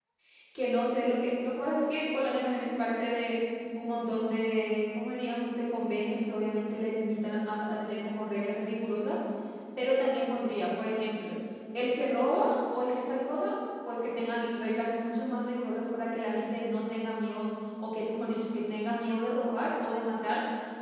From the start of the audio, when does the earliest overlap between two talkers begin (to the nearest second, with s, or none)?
none